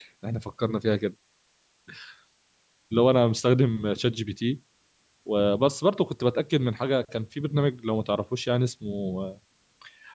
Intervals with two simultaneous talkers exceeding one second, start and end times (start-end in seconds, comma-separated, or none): none